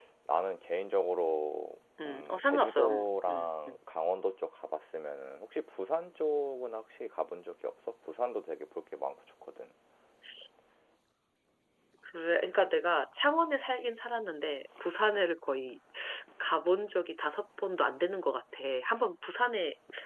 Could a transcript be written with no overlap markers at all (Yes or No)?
No